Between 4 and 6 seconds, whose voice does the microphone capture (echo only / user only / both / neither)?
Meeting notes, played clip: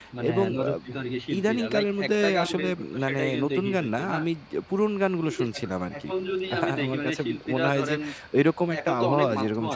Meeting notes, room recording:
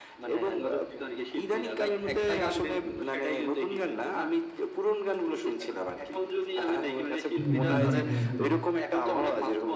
echo only